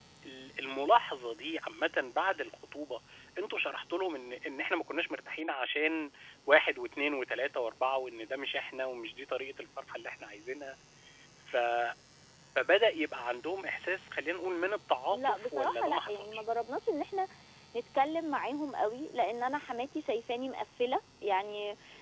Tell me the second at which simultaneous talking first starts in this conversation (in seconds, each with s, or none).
15.1 s